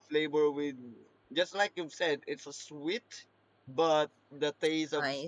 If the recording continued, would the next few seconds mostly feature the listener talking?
No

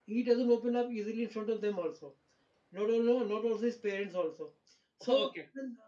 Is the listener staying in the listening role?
Yes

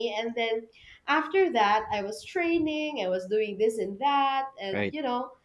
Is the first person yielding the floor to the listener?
No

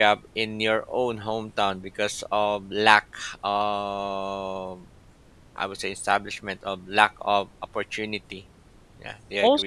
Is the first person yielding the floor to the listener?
Yes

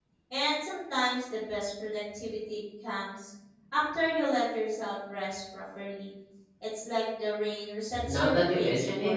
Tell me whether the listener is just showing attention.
No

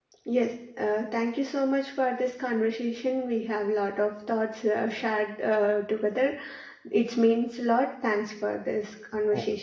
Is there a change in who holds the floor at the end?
Yes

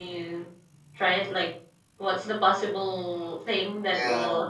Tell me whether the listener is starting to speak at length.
Yes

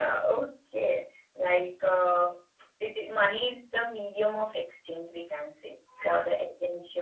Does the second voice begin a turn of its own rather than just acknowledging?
No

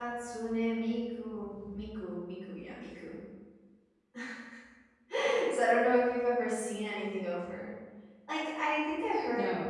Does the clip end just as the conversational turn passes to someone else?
No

